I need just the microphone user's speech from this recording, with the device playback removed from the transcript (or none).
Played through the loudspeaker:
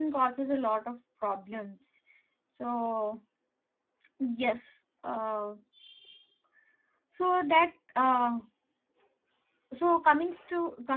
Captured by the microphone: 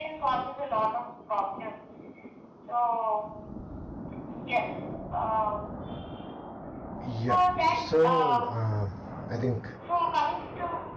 Yep. So um, I think